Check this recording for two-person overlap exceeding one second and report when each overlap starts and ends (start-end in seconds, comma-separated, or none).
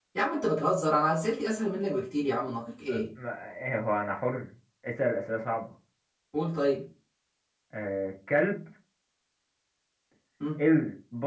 none